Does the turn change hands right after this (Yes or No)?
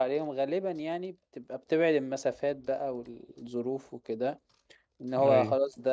No